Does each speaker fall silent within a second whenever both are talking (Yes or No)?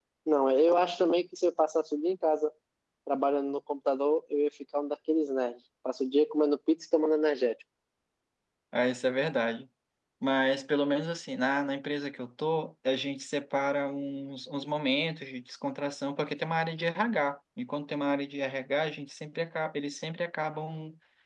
Yes